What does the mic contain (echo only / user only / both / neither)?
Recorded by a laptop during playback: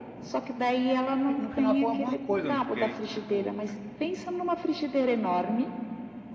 both